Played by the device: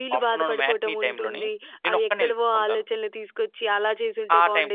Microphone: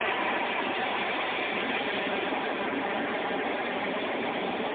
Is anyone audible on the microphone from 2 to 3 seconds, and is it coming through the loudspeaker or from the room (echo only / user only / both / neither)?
neither